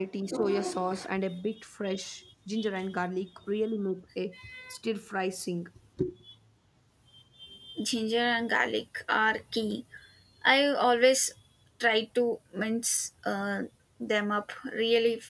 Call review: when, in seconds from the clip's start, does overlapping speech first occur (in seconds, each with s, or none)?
none